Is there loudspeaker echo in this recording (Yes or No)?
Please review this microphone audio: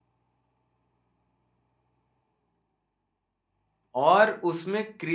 No